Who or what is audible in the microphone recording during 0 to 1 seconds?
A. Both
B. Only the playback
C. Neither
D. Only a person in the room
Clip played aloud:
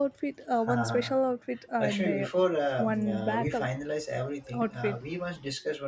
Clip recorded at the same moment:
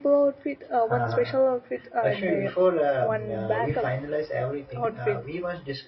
B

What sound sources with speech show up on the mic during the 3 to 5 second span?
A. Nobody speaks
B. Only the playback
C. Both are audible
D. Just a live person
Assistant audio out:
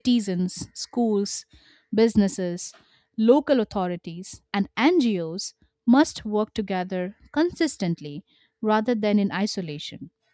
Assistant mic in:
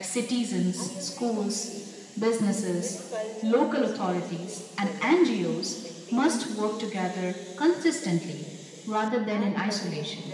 C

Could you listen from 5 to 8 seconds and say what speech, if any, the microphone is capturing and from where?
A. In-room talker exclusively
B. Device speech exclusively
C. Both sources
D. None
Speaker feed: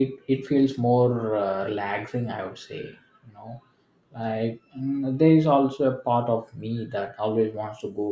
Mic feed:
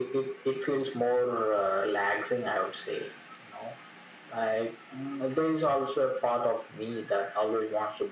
B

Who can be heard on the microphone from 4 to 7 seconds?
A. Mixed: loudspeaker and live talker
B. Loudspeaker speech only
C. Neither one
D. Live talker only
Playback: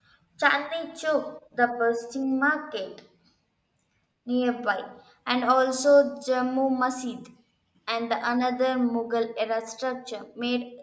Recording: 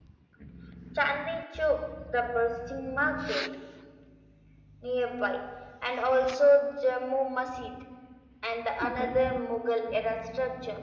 B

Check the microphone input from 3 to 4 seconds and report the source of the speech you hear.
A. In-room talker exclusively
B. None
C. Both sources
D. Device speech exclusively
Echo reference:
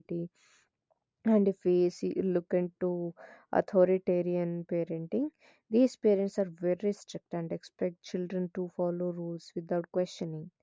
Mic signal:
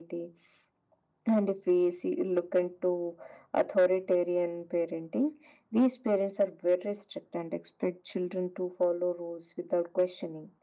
D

